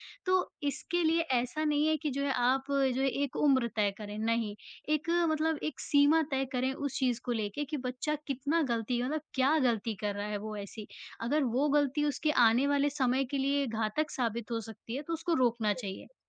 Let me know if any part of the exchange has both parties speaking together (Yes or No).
No